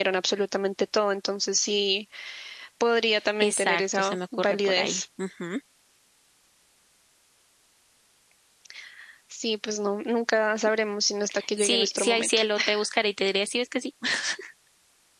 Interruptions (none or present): present